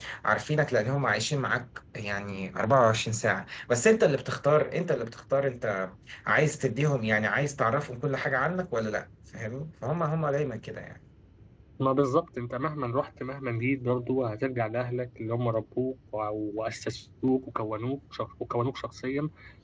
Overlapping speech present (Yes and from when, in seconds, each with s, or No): No